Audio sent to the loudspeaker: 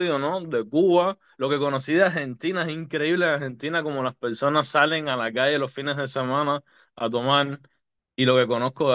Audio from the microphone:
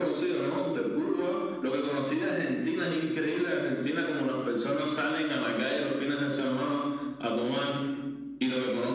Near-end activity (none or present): none